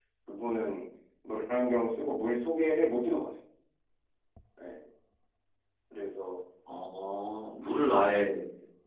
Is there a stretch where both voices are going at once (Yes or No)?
No